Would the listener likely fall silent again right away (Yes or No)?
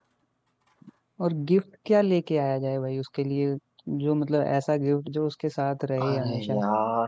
No